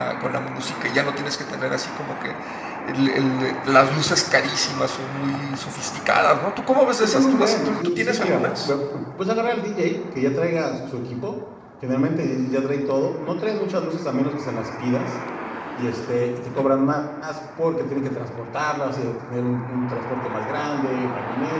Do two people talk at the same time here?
Yes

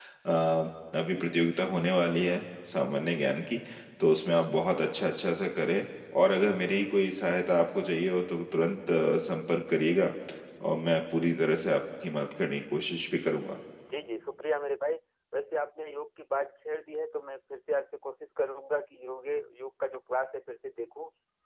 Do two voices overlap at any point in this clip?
No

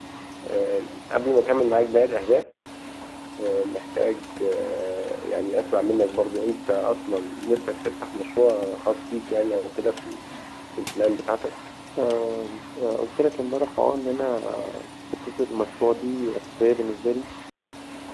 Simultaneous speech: No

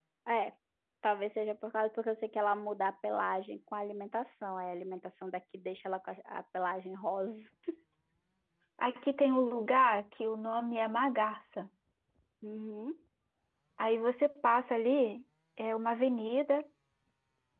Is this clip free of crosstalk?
Yes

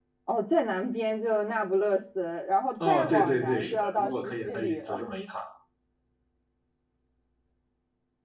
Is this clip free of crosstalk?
No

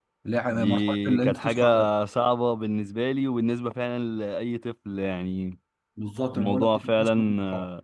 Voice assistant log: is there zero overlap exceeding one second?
No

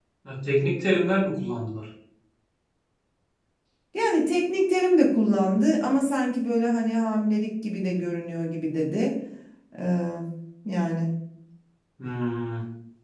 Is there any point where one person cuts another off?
No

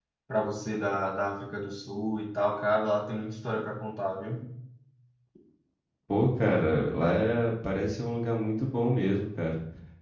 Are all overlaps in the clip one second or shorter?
Yes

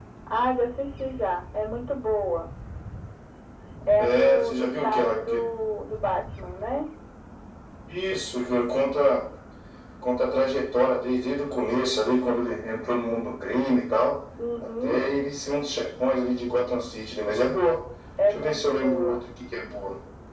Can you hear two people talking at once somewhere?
Yes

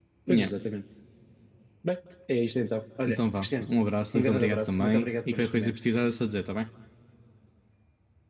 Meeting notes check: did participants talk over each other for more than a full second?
Yes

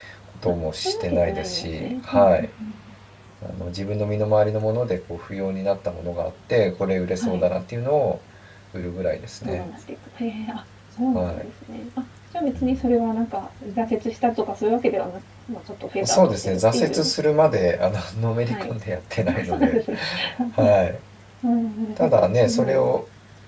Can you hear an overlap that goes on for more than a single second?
Yes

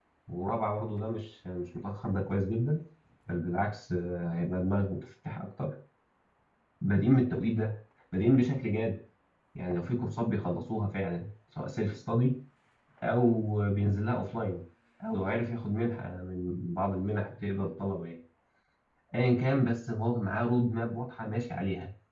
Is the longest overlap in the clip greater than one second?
No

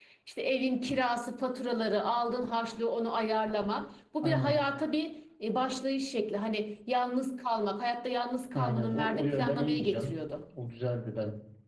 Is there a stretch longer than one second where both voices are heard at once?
Yes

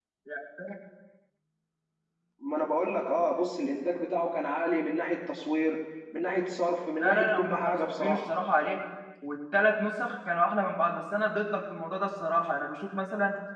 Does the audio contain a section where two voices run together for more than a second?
Yes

